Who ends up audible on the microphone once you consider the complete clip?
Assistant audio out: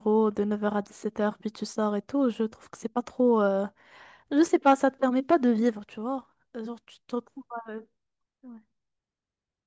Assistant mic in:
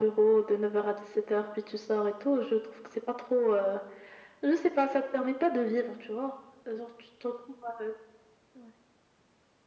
echo only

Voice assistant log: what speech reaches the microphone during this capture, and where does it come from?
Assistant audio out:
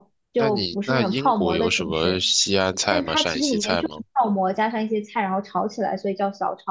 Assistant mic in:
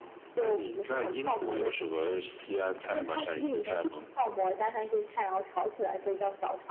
echo only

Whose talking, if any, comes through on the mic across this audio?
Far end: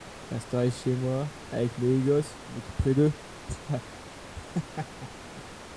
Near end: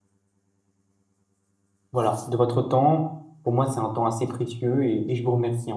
user only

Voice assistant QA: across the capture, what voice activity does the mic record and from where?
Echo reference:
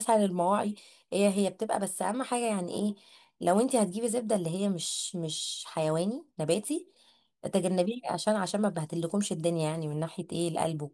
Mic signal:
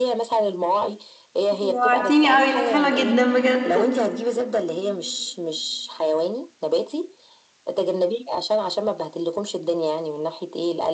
both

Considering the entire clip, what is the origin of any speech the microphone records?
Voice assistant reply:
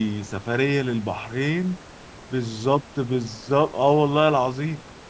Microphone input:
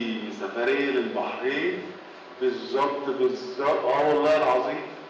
echo only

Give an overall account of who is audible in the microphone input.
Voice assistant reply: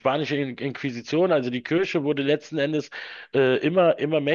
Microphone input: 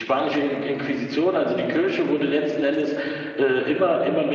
echo only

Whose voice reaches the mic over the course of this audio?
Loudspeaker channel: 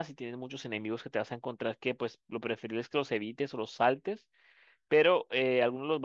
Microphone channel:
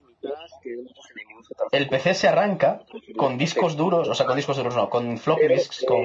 both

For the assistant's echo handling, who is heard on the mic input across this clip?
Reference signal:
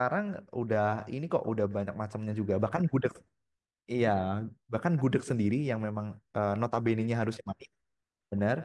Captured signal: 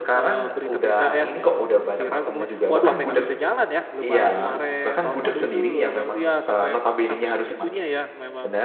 both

